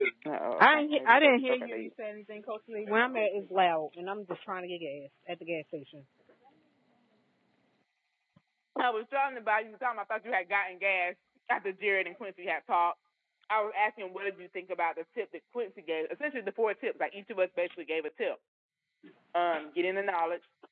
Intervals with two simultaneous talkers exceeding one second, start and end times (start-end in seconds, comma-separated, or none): 0.6-1.9